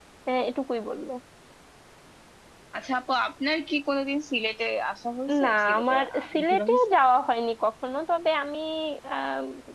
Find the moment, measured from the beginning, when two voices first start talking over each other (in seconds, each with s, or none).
5.3 s